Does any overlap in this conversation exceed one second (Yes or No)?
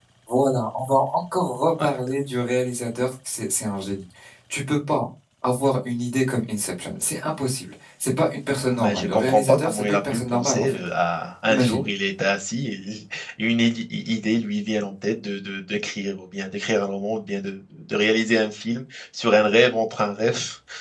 Yes